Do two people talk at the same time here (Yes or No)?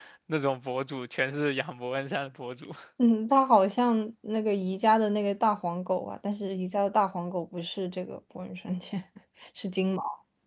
No